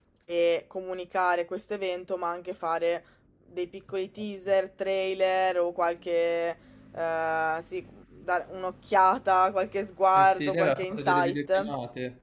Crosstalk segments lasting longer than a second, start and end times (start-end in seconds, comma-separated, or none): 10.1-11.7